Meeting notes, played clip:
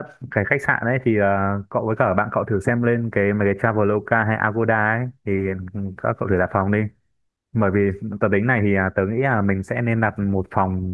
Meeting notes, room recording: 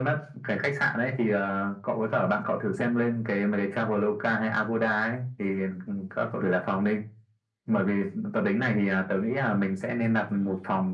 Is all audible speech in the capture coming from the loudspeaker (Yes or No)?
Yes